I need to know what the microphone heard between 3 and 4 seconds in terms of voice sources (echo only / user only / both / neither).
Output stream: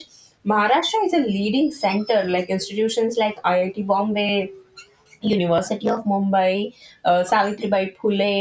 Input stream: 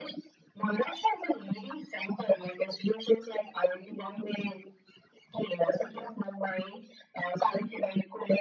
echo only